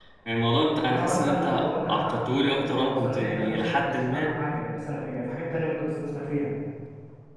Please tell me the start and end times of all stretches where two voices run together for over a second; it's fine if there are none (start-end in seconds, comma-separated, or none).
0.7-4.3